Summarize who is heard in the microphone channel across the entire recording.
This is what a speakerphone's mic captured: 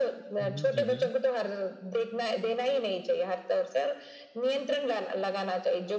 both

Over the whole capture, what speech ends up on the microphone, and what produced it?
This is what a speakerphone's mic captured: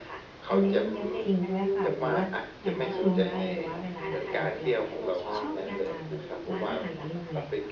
both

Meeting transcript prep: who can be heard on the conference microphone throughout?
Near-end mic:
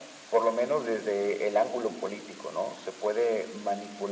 echo only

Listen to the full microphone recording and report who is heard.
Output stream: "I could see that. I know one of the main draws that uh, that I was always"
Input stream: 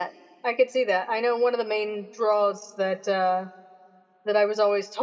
echo only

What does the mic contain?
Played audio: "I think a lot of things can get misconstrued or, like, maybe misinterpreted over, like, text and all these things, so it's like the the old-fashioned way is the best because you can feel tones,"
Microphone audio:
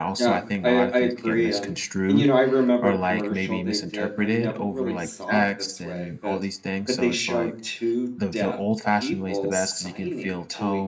both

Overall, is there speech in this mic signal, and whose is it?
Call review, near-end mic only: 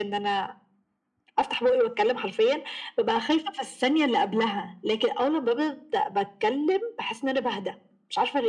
echo only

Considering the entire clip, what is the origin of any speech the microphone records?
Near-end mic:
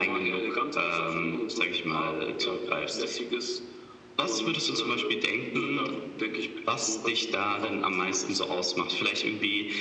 echo only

